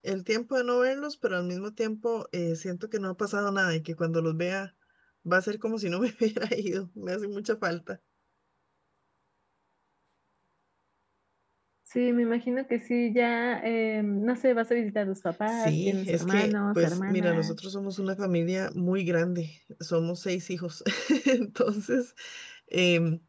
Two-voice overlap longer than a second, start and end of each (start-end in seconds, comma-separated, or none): 15.5-17.6